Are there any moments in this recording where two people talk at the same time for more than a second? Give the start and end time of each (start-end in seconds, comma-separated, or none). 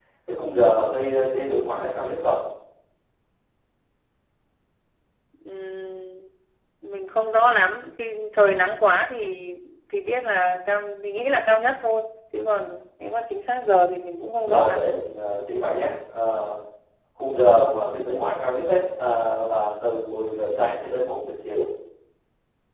none